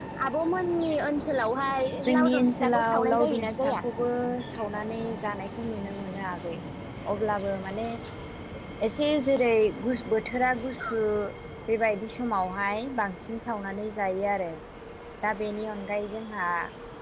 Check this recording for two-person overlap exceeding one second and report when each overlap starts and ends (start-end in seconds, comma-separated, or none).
2.0-3.8